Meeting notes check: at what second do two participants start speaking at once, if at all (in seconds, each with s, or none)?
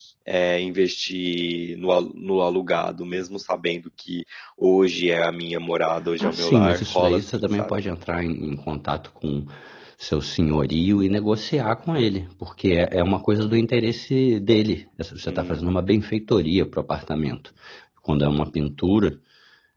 6.2 s